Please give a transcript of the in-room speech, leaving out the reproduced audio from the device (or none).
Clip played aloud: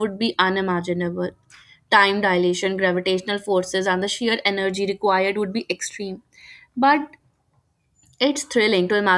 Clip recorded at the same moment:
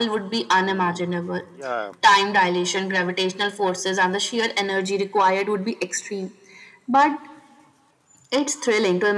Um yeah